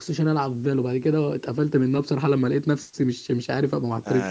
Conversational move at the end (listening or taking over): taking over